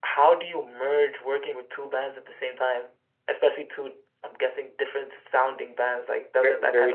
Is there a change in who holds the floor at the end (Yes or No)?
Yes